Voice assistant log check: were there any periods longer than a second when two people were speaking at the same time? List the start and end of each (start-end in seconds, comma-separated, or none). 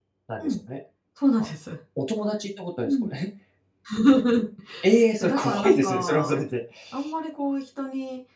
5.2-6.4